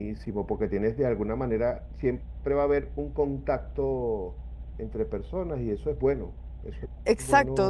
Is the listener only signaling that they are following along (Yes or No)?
No